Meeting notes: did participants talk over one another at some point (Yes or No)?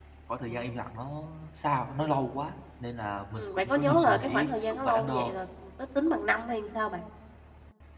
Yes